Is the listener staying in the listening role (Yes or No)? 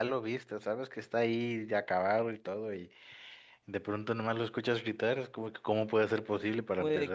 No